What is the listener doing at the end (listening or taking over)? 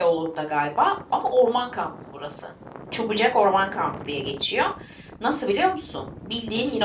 listening